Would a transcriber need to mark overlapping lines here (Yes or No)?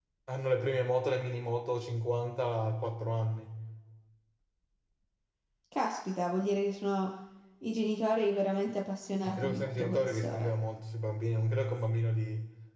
Yes